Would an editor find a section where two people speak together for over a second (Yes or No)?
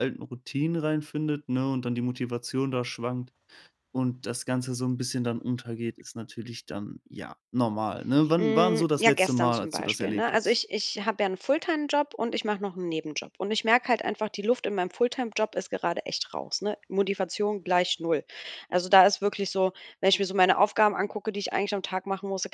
Yes